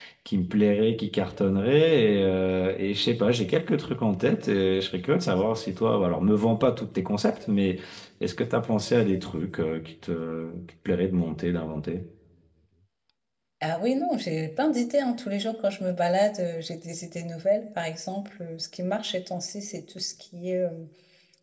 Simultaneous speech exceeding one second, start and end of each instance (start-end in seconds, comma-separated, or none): none